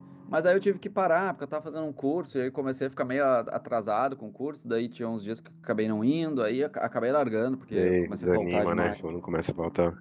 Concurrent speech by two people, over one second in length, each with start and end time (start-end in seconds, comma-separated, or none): 7.7-8.9